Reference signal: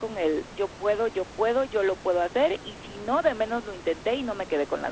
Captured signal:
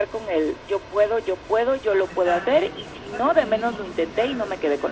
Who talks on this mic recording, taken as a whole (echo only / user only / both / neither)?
both